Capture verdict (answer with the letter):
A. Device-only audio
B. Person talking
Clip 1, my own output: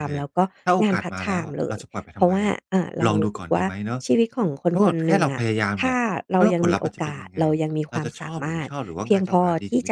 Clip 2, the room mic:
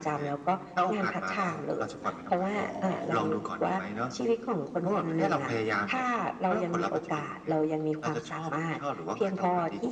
A